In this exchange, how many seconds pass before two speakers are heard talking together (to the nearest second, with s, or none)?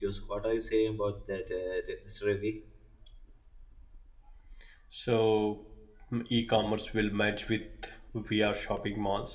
none